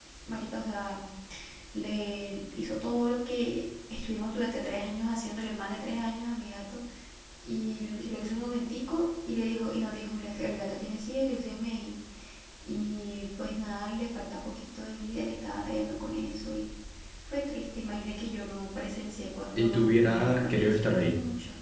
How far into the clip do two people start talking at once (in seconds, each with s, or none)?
19.6 s